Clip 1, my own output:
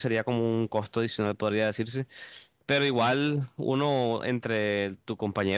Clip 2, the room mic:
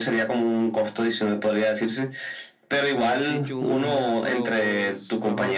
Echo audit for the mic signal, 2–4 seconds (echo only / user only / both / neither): both